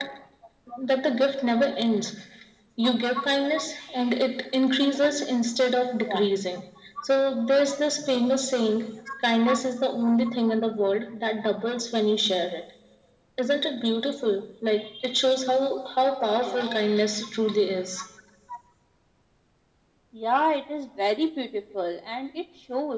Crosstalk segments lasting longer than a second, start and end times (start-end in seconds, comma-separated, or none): none